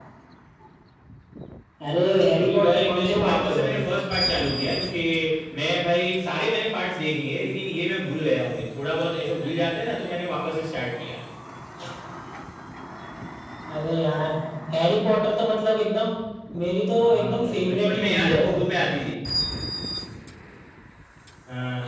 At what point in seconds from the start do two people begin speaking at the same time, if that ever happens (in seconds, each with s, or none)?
2.4 s